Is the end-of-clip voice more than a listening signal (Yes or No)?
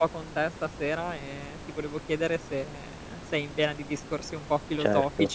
Yes